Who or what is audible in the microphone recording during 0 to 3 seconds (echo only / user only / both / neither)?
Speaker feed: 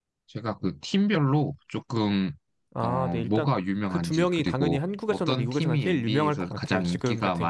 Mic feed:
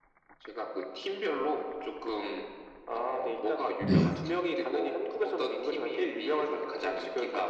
echo only